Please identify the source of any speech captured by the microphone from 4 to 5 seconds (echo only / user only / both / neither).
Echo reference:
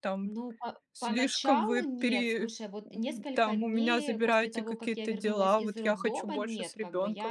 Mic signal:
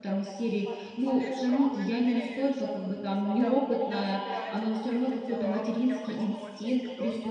both